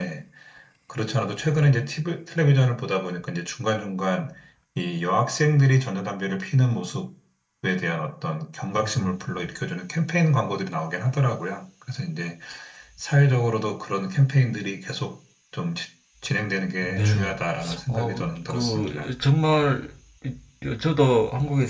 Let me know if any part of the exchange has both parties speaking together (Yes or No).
Yes